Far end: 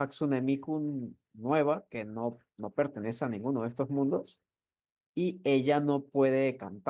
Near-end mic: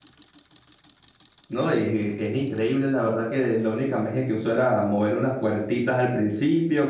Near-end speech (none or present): present